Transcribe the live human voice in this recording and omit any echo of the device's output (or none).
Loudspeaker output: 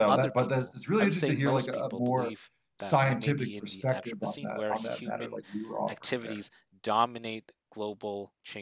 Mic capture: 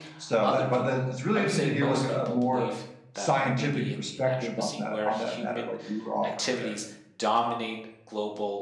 none